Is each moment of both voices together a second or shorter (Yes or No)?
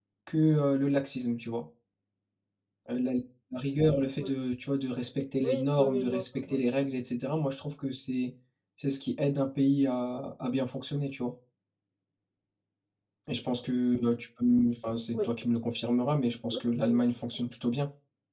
No